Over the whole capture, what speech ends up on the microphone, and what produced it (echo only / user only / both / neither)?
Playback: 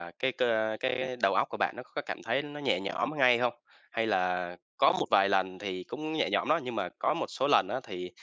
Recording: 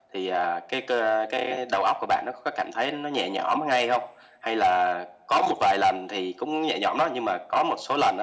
echo only